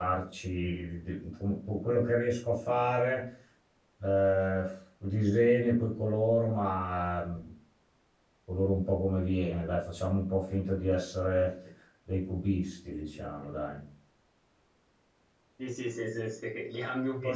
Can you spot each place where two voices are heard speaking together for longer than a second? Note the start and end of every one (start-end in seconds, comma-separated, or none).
none